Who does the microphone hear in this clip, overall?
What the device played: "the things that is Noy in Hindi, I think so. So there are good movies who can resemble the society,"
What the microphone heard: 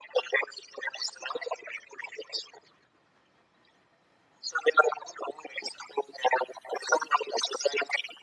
echo only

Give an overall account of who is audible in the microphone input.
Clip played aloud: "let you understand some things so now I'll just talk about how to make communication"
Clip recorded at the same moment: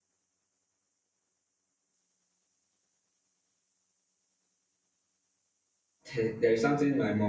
user only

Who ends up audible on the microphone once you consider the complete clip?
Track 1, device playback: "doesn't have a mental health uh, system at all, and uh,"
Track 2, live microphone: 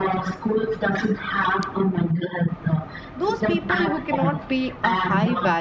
both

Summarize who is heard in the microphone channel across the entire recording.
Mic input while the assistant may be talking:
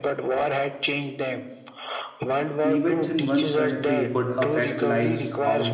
both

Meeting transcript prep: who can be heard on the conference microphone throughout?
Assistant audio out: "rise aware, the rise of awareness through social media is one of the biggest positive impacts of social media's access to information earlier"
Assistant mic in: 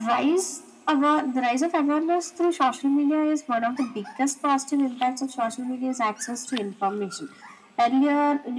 echo only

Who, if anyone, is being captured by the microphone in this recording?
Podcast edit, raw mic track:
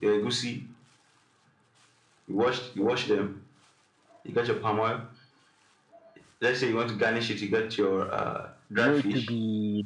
both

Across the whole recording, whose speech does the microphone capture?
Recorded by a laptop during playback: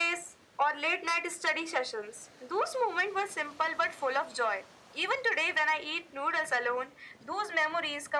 echo only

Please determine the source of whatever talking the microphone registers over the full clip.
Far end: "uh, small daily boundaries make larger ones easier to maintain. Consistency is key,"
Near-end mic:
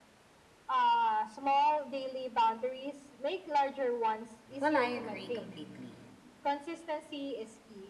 both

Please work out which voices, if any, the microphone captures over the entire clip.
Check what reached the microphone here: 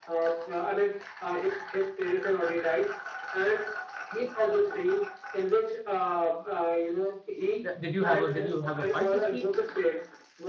both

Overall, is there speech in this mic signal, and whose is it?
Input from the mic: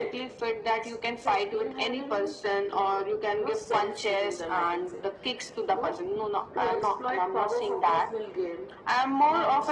echo only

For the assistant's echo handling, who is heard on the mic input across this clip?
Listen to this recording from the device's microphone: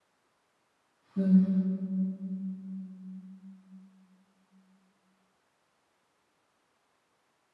user only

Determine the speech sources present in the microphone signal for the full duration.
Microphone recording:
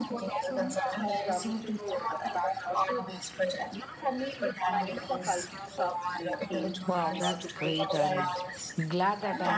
both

